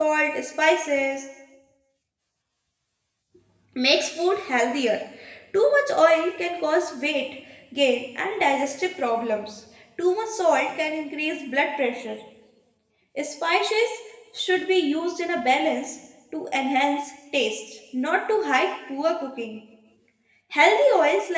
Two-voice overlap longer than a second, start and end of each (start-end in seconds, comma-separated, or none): none